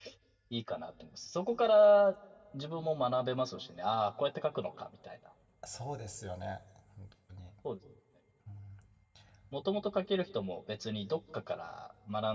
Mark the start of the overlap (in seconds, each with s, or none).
none